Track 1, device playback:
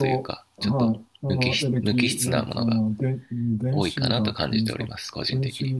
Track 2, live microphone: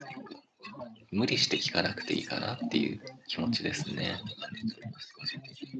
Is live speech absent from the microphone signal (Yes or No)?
No